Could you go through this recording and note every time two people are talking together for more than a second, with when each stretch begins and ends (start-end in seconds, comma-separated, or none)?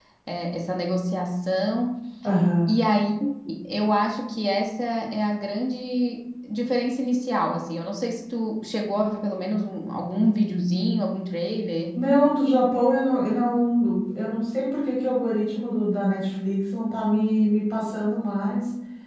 none